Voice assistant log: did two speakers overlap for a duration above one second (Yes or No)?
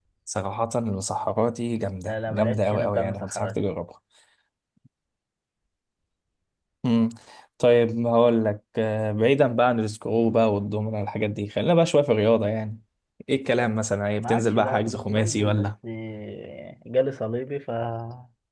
Yes